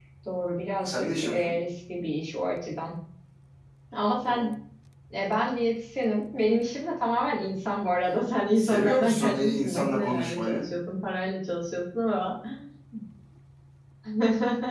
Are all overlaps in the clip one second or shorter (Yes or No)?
No